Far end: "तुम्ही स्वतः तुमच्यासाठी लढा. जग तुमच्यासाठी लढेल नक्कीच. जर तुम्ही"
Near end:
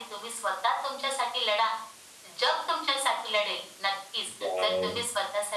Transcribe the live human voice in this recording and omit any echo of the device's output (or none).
वॉव!